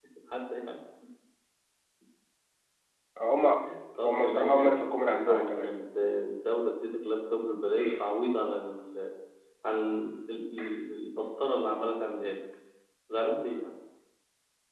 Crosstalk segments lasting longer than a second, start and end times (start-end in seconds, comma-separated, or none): 4.0-5.8